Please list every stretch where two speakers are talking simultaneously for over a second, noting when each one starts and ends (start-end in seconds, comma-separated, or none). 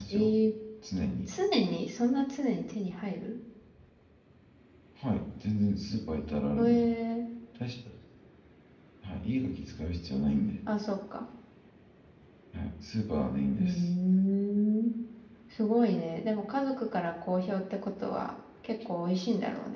none